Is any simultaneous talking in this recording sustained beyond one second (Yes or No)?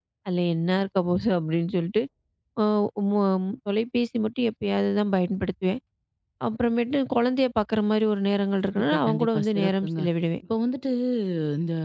Yes